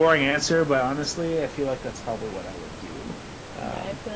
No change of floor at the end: No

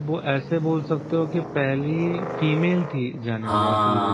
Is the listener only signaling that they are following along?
No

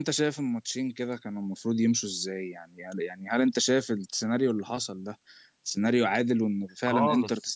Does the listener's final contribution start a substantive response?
Yes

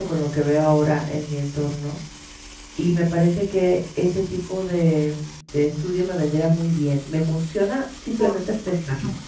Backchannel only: No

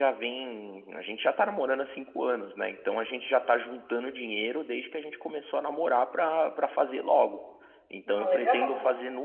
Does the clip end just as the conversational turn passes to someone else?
No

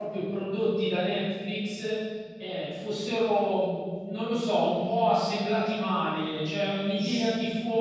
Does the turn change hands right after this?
No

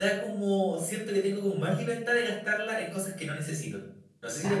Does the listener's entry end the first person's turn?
Yes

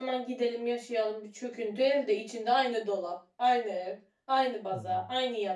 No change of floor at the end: Yes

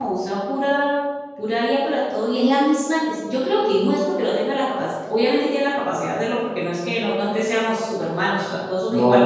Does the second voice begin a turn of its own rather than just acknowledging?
No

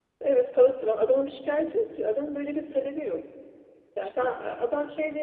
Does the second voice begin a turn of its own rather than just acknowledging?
No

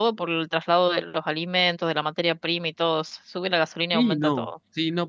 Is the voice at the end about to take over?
Yes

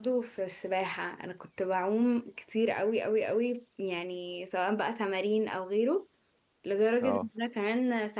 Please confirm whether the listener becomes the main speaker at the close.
No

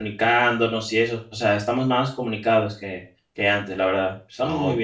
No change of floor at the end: No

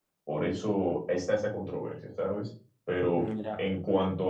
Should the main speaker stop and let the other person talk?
No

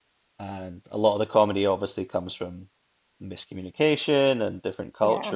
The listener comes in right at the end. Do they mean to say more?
No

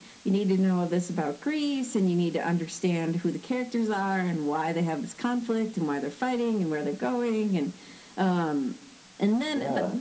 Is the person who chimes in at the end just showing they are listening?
Yes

